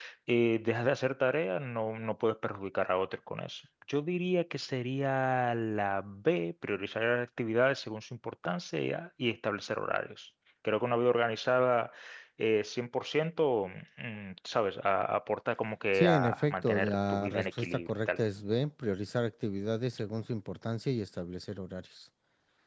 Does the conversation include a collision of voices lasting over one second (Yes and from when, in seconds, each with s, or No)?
Yes, from 15.9 s